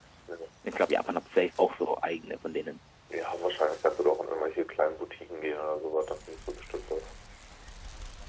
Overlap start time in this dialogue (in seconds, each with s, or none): none